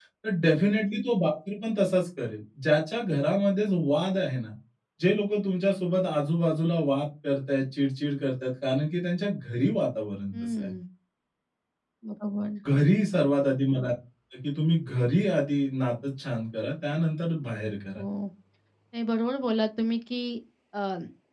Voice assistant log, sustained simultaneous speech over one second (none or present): none